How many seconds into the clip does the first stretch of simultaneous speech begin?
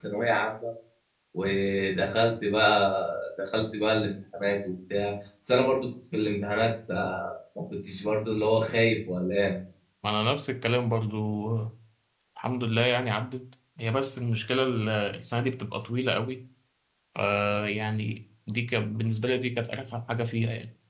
none

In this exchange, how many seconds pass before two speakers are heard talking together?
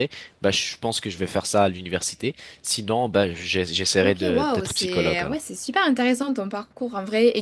4.0 s

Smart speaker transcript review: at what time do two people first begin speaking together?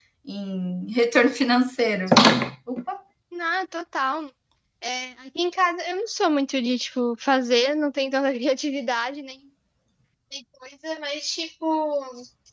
none

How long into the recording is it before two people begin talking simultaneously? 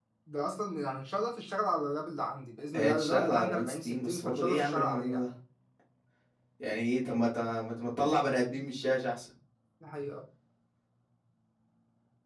2.7 s

